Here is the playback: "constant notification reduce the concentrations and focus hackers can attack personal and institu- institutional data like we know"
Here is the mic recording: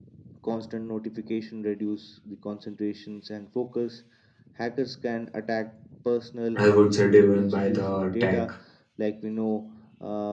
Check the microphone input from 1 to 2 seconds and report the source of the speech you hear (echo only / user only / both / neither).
echo only